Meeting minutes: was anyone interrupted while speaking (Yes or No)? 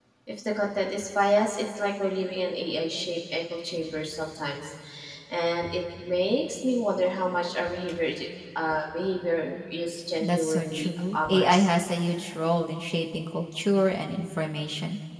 Yes